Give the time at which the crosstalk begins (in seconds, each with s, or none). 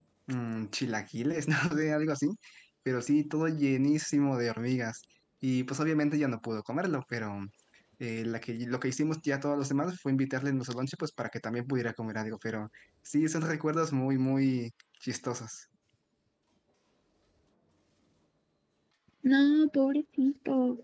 none